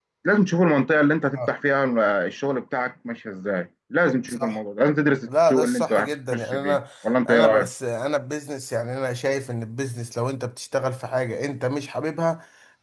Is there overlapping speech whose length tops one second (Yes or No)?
Yes